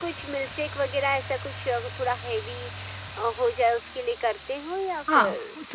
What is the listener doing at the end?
taking over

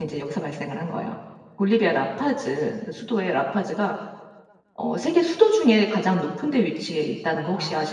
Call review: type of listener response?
taking over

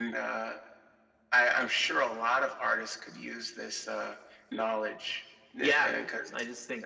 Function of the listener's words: taking over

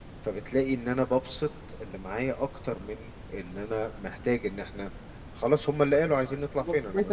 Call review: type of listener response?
taking over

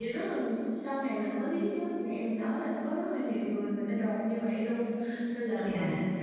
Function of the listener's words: listening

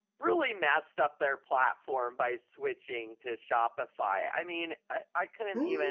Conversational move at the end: listening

